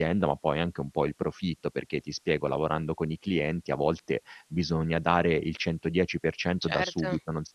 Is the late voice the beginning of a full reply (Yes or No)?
No